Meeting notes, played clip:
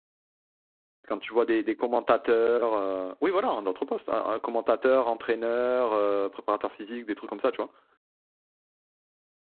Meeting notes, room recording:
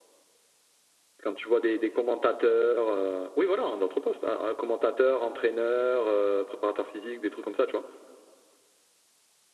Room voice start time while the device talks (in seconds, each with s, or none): none